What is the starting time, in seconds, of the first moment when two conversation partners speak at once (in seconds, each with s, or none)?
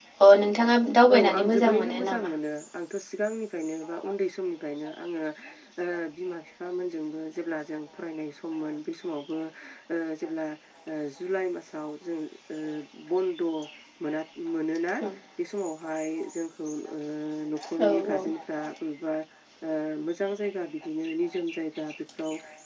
1.1 s